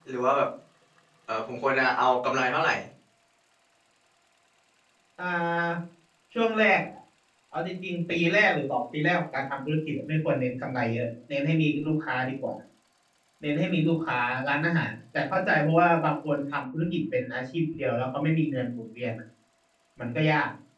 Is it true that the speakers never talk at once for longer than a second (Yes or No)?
Yes